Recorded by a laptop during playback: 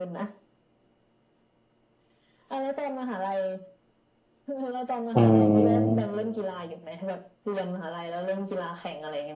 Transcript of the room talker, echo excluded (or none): อ๋อ